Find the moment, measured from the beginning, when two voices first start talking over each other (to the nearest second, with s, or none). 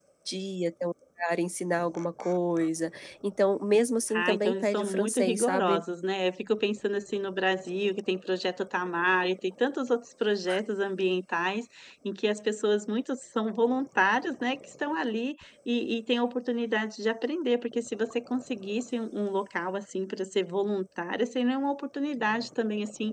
4 s